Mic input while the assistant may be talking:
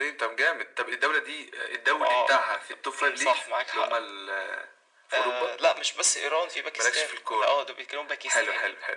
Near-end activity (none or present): none